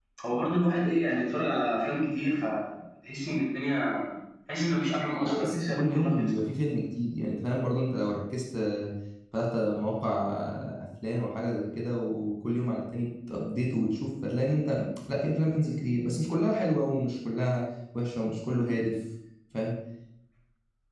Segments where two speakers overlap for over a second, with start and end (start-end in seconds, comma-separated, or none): 5.2-6.6